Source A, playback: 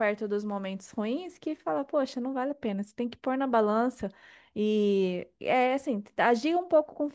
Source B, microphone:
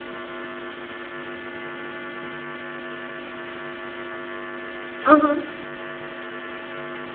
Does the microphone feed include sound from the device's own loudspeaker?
No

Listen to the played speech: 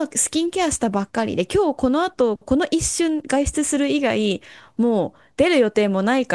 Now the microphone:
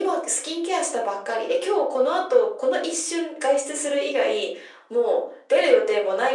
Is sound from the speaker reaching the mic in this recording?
Yes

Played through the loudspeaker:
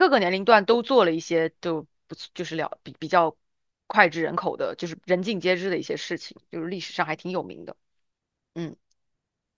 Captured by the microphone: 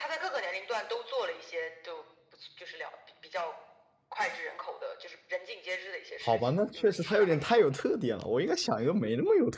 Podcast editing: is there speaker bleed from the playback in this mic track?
Yes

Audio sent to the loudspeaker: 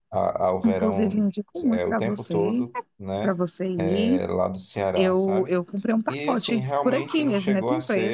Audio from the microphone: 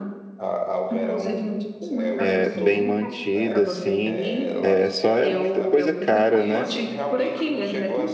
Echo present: Yes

